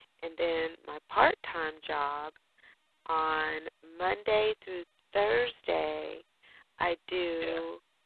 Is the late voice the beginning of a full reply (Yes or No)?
No